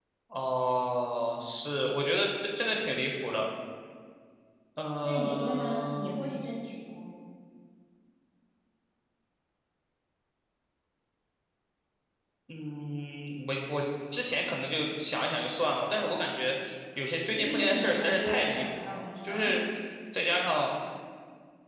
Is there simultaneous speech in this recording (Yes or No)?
Yes